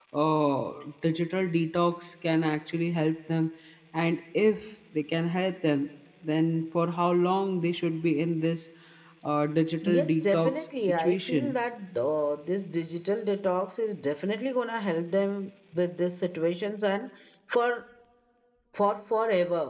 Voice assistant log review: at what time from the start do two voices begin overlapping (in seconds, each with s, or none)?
9.8 s